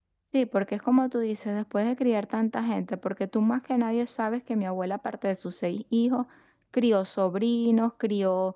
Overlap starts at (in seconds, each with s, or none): none